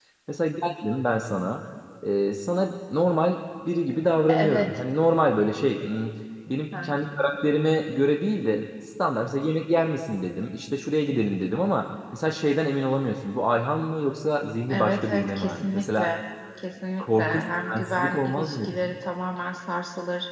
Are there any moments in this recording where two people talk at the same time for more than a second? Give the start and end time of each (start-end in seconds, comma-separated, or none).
14.7-16.1, 17.0-18.7